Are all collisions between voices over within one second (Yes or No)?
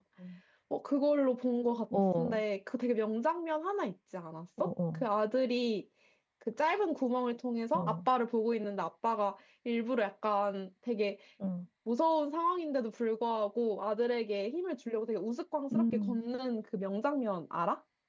Yes